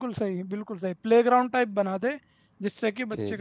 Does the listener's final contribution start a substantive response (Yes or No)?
No